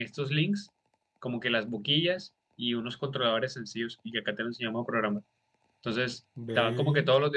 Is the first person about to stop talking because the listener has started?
No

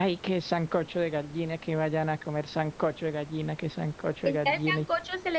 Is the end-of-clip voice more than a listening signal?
Yes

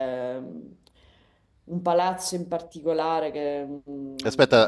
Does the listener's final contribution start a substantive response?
Yes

